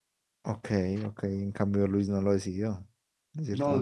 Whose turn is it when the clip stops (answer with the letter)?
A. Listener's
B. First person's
A